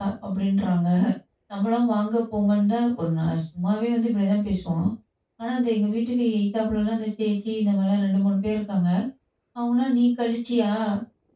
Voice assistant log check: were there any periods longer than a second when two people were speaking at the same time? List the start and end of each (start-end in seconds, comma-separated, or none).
none